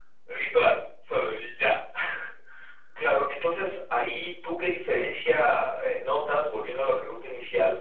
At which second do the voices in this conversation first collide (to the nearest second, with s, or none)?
none